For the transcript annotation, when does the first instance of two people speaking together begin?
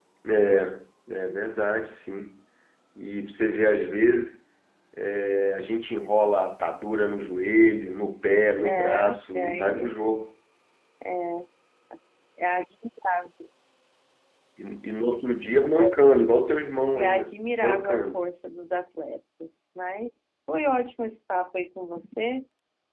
8.6 s

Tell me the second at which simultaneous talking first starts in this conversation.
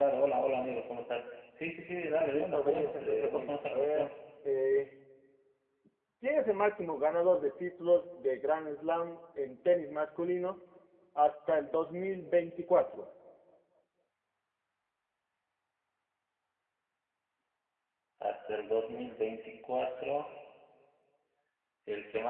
2.3 s

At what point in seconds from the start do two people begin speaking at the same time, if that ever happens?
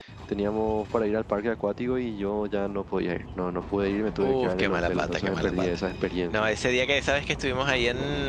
4.2 s

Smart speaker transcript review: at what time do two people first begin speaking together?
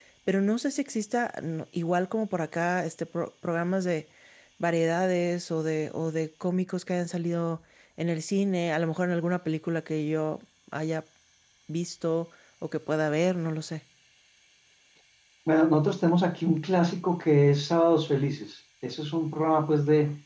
none

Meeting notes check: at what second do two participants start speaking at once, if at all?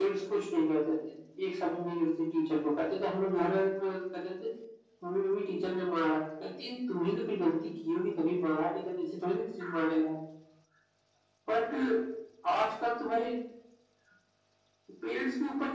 none

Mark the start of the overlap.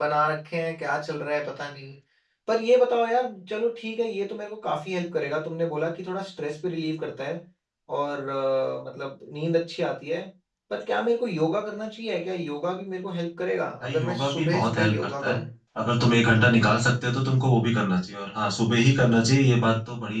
13.8 s

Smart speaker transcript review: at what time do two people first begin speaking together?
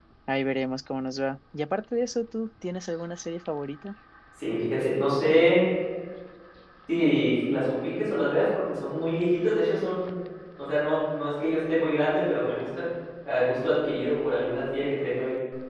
none

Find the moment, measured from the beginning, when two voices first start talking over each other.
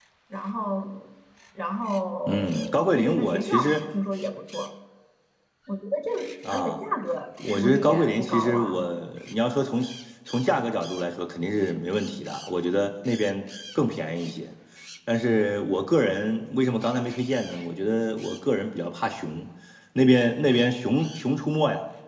2.3 s

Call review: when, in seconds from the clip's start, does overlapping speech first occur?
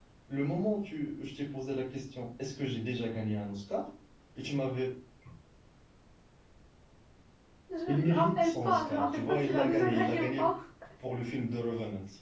7.9 s

